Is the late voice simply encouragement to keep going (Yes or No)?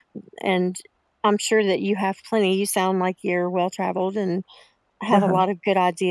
Yes